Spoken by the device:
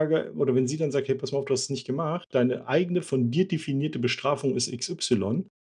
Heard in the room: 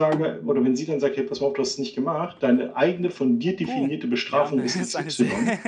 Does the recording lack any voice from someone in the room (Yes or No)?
No